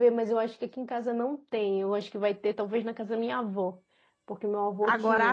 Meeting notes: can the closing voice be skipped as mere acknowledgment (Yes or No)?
No